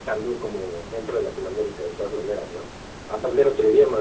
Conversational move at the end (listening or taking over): listening